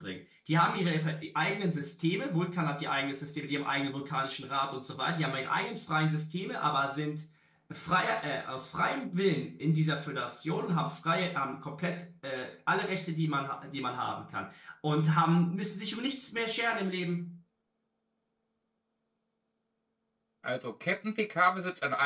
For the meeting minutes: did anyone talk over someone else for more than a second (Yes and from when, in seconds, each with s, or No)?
No